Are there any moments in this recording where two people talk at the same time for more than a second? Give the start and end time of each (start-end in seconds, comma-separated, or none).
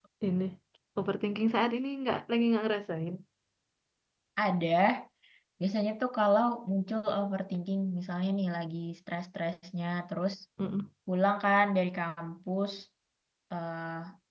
none